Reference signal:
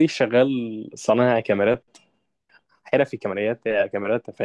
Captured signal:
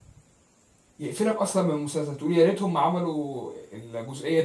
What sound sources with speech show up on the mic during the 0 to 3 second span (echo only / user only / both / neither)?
user only